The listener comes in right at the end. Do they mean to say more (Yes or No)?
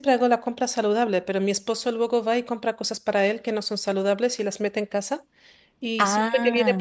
No